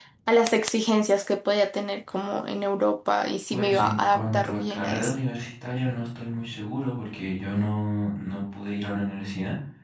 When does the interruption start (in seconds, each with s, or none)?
3.5 s